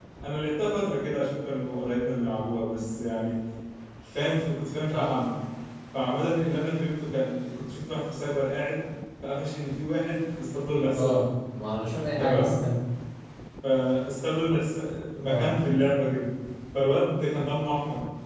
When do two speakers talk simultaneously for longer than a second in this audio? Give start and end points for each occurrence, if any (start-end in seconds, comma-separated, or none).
none